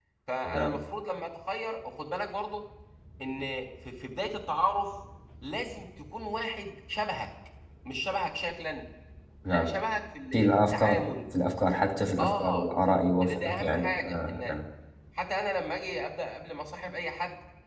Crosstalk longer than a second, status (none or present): present